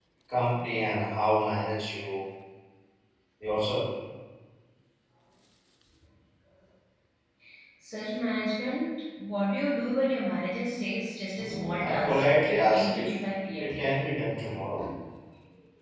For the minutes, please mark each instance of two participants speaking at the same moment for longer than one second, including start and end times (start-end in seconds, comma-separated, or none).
11.4-13.1